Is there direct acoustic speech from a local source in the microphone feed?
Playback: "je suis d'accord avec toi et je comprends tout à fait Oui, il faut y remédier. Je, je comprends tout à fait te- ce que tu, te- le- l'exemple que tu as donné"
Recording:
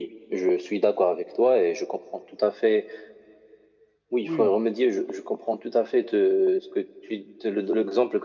Yes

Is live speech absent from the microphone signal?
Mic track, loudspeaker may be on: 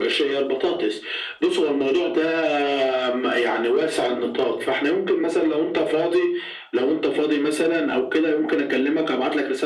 Yes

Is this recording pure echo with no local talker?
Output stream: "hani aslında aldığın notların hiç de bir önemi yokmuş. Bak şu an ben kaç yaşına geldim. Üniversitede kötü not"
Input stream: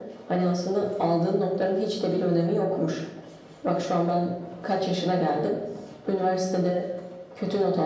Yes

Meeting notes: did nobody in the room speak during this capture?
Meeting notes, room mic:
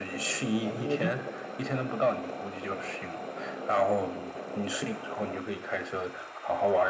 No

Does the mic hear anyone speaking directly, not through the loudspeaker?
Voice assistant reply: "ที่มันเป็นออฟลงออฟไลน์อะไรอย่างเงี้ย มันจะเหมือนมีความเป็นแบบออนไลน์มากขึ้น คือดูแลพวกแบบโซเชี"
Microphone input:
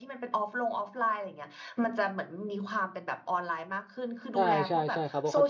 Yes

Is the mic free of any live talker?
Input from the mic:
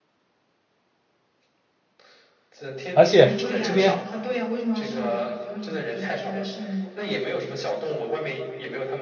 No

